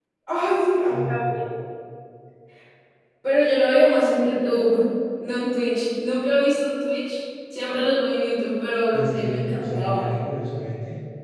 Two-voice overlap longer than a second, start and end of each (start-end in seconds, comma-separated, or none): 8.9-10.2